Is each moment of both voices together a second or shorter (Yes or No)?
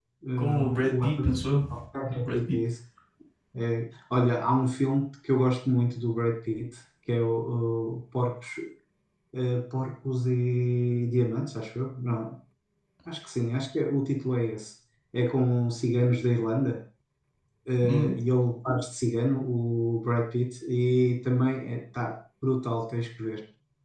No